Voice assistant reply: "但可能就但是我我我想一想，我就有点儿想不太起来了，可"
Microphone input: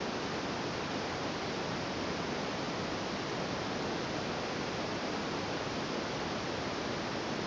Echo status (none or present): none